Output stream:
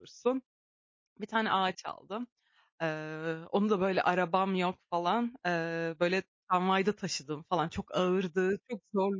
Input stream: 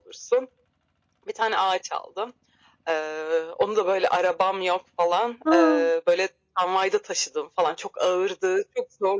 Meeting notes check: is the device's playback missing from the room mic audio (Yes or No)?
No